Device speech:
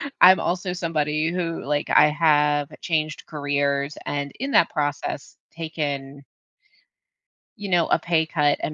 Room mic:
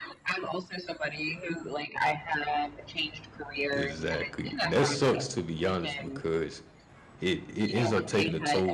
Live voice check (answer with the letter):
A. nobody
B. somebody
B